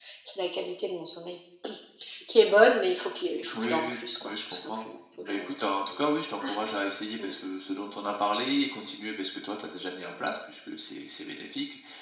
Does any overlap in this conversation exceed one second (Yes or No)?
Yes